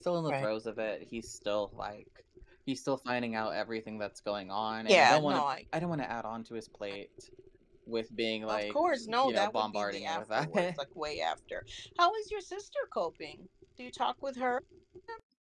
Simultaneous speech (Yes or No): Yes